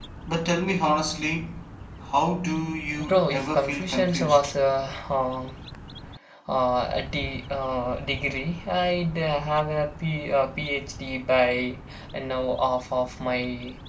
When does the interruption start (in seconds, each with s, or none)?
2.9 s